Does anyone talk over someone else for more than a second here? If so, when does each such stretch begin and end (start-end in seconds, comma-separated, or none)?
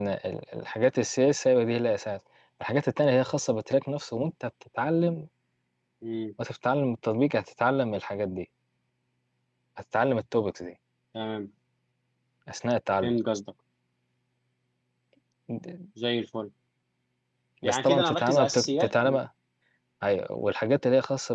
17.6-19.2